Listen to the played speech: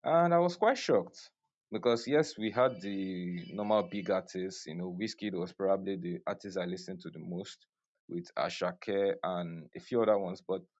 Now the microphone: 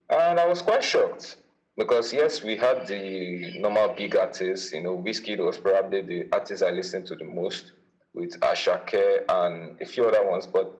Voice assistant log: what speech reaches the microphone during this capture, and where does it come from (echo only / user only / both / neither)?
echo only